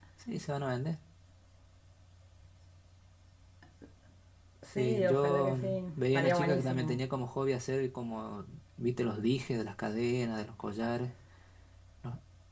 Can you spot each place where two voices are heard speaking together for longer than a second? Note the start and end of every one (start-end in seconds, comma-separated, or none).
4.8-7.0